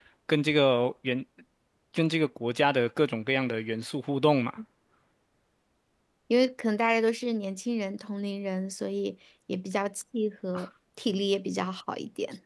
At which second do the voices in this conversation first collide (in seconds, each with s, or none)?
none